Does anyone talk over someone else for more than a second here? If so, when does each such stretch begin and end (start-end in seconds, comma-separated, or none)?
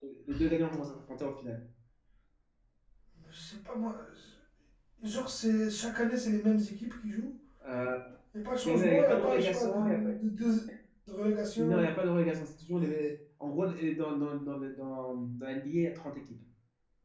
8.7-10.1